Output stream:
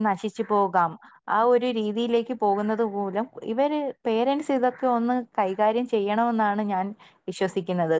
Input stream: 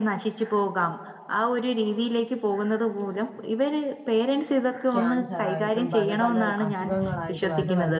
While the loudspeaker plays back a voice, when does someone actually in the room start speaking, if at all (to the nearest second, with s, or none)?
5 s